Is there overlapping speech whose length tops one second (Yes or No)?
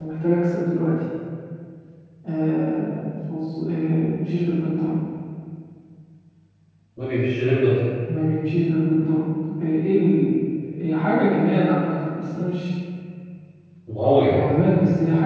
No